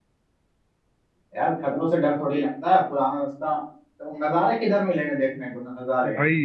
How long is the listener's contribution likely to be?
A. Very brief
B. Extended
B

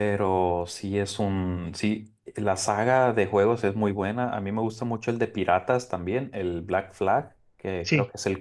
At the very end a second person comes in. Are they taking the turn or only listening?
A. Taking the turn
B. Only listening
B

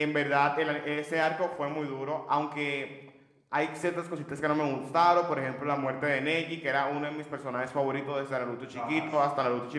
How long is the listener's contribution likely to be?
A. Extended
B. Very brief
B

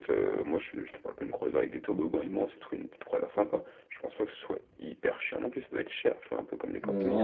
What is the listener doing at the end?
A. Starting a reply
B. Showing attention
A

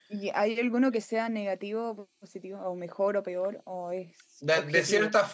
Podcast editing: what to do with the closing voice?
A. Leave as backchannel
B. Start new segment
B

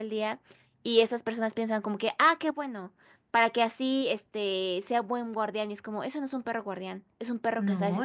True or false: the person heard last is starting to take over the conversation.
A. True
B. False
B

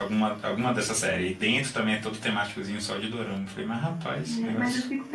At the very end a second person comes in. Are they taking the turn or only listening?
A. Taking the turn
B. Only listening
A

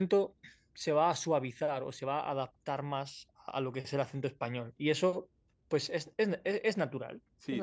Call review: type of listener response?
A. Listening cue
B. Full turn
B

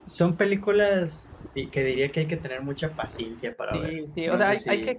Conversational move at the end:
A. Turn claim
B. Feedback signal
A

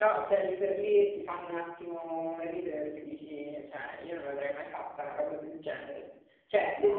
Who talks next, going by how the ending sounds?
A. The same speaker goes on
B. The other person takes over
A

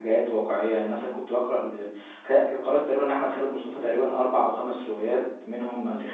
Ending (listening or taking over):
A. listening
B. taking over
A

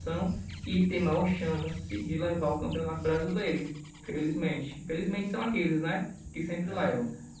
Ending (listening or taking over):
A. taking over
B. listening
B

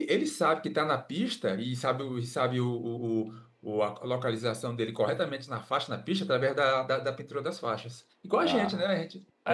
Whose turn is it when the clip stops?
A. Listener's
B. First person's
A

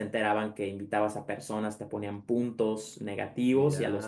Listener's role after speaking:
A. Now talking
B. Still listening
B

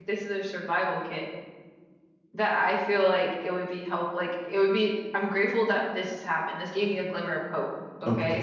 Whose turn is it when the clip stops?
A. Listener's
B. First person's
A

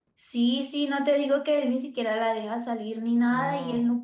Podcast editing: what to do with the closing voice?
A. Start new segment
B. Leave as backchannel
B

